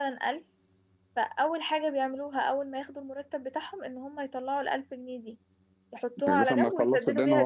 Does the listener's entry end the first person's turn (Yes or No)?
Yes